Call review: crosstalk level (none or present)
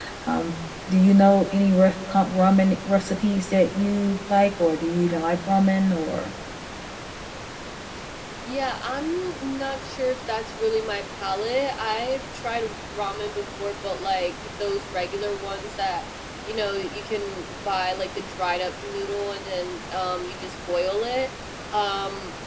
none